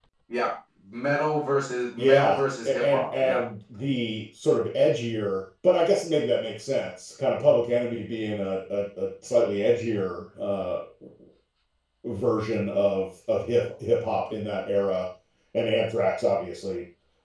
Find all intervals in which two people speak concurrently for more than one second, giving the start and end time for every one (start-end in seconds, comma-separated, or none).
2.0-3.4